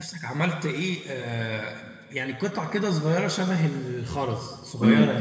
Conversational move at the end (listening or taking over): taking over